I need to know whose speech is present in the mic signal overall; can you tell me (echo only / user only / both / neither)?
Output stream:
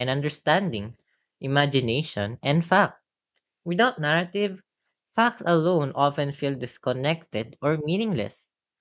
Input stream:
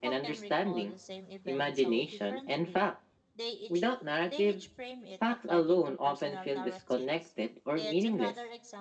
both